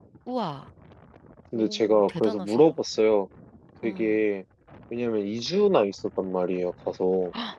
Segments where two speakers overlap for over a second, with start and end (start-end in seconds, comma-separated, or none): 1.6-2.8